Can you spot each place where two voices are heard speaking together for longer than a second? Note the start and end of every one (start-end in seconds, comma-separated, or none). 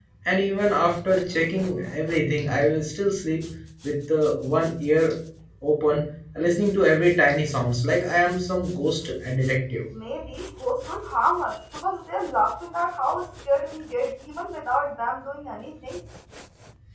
none